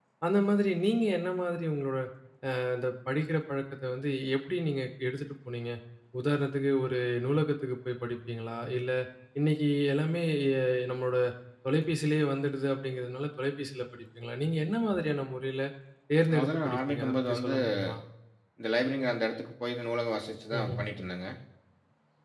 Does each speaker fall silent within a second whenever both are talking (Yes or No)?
No